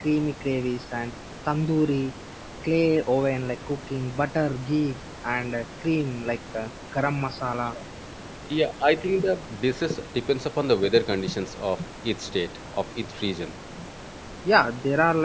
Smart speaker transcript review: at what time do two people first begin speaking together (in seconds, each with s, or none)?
none